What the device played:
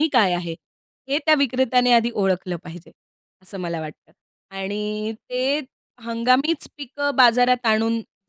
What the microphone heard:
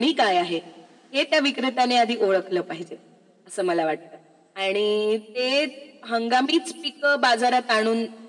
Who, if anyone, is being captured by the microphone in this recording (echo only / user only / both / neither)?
echo only